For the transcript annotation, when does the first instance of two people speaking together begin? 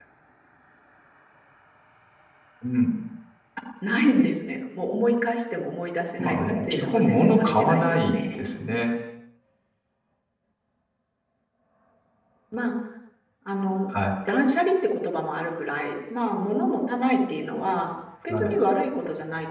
6.2 s

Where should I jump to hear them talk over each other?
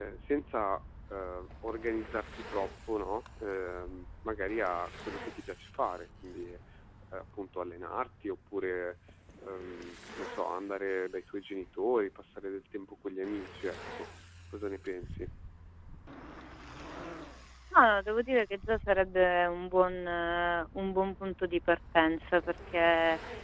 none

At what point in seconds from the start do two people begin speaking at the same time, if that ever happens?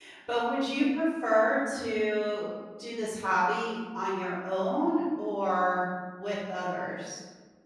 none

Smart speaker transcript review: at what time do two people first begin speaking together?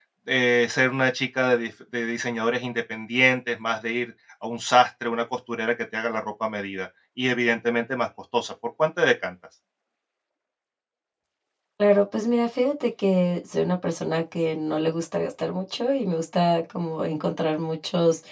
none

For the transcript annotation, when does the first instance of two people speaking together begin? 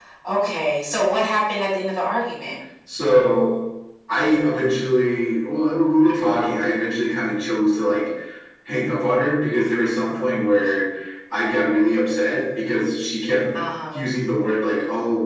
none

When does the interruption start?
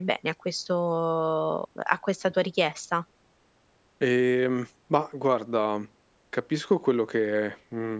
none

